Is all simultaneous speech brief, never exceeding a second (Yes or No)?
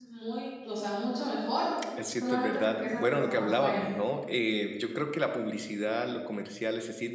No